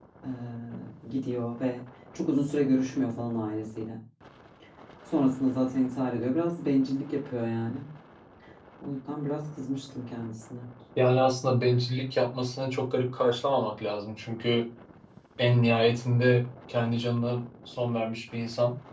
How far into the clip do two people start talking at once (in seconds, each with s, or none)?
none